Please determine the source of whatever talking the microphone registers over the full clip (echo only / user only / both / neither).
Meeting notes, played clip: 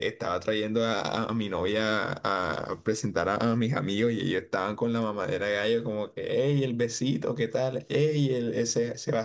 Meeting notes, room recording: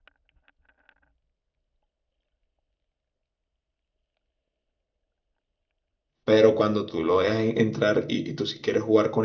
user only